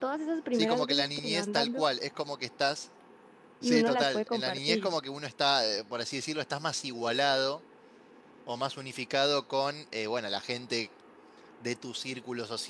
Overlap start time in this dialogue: 0.5 s

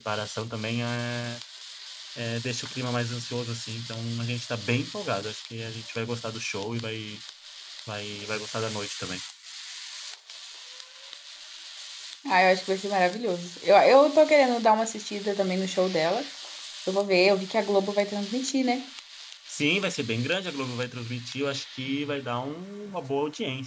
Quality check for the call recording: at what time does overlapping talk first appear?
none

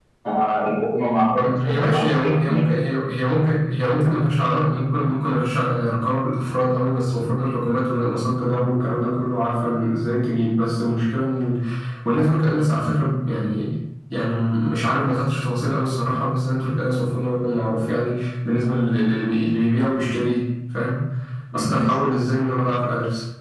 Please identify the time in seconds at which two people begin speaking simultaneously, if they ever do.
1.3 s

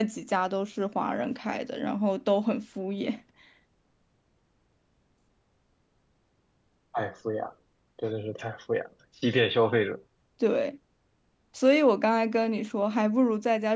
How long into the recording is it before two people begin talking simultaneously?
none

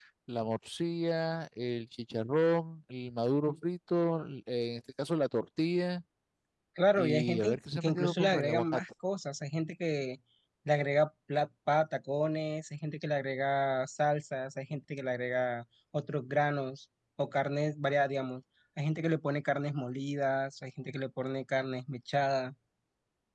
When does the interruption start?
7.0 s

